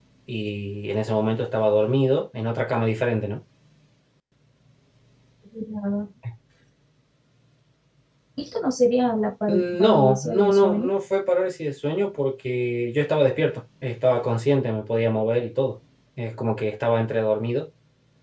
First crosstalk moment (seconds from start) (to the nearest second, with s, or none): 9 s